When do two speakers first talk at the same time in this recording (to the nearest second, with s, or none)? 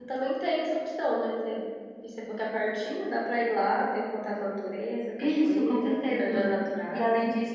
5 s